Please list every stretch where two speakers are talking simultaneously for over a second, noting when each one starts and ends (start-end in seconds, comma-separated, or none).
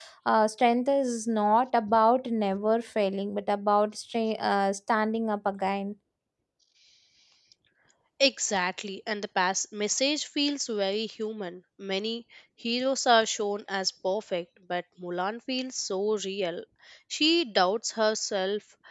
none